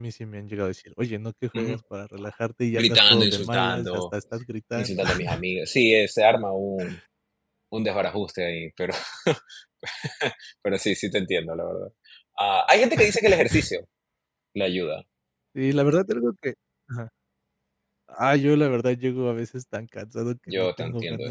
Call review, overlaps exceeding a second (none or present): present